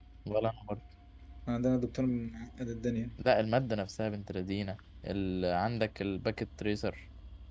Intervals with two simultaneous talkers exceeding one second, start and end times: none

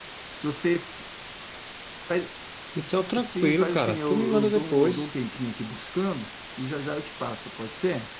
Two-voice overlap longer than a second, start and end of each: 3.2-5.1

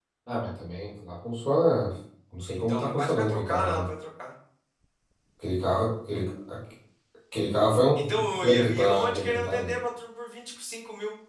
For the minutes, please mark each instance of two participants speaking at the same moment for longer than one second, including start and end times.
2.5-3.9, 8.1-9.7

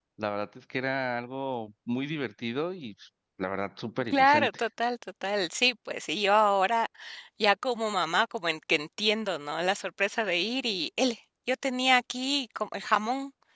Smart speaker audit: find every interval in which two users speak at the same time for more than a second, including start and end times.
none

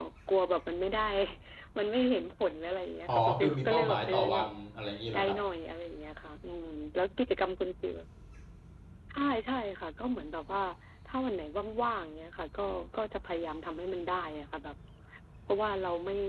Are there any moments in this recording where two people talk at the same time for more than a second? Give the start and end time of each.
3.1-4.5

